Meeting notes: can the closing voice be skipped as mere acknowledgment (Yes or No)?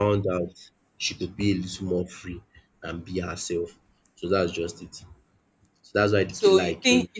No